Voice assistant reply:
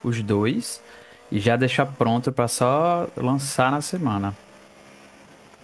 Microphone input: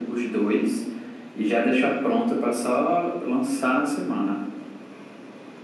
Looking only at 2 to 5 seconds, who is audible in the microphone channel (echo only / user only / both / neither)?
echo only